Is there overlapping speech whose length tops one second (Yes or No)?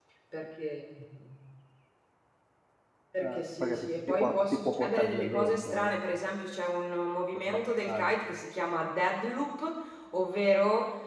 Yes